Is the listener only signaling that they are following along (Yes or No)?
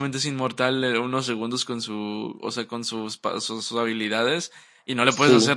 Yes